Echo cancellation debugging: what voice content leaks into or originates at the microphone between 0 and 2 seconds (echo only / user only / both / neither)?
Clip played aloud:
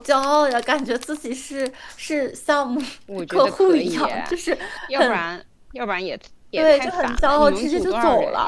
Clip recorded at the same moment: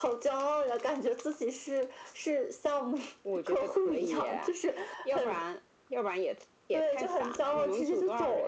echo only